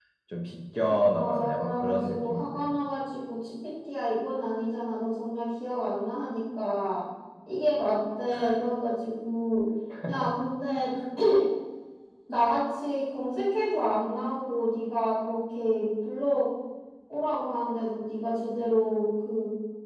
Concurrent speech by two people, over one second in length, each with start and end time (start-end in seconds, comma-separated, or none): 0.8-2.6